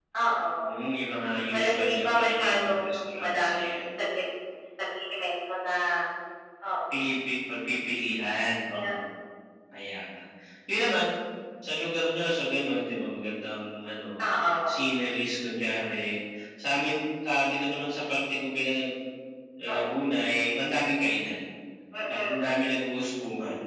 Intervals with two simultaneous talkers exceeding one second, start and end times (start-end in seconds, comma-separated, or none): 1.5-3.8